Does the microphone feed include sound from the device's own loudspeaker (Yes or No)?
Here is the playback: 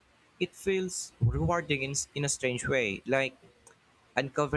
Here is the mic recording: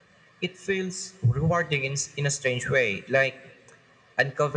Yes